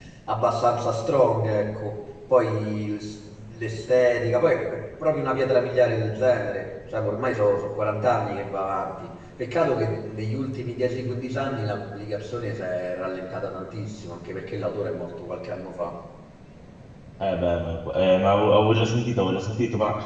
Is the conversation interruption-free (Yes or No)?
Yes